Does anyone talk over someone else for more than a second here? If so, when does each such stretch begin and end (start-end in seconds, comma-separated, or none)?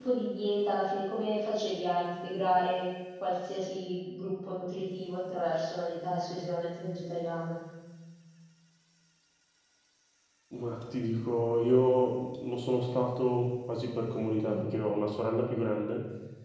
none